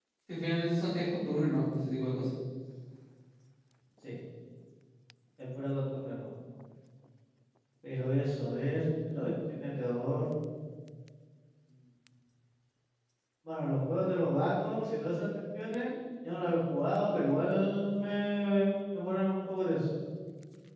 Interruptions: none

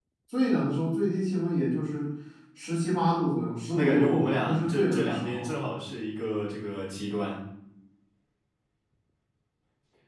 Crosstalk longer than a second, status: present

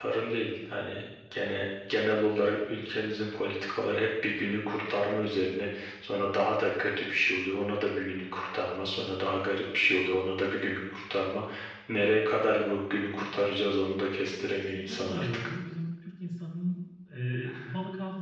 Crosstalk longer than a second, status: present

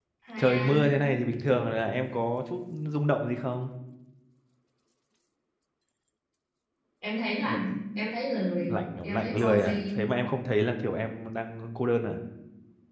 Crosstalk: present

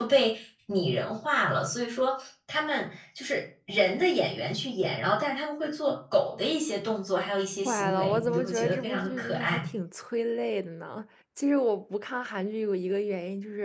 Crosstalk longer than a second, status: present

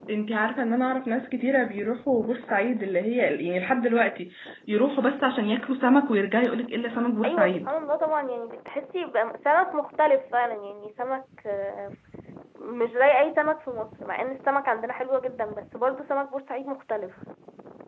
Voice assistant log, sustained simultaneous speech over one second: none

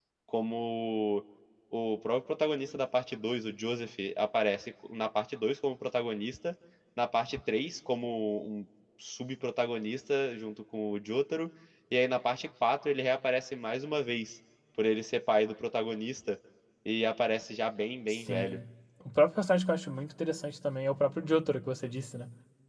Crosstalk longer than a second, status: none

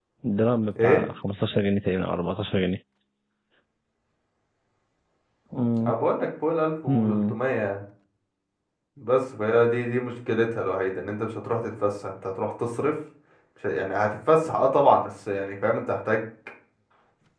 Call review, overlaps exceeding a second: none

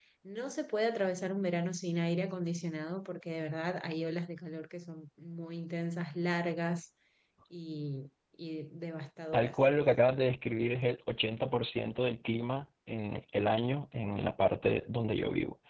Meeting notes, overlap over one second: none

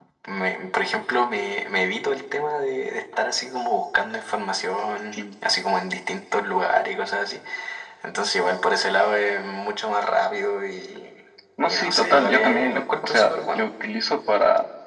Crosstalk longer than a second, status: present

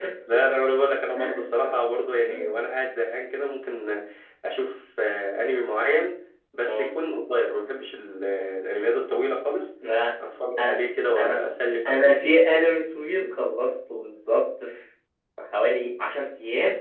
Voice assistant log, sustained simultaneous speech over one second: none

